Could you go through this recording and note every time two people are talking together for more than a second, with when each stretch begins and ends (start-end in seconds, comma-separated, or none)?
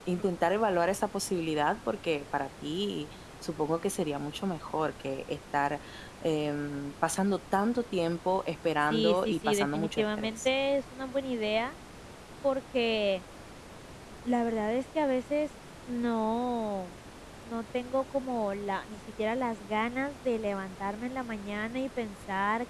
8.8-10.5